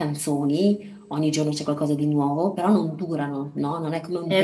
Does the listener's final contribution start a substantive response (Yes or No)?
No